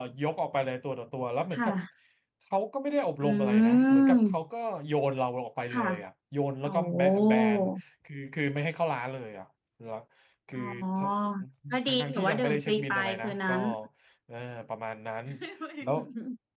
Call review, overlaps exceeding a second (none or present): present